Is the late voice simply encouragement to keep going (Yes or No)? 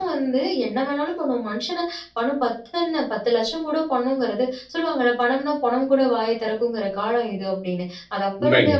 Yes